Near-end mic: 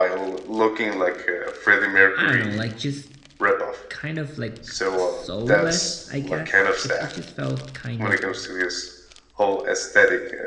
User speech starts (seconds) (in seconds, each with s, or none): 2.1 s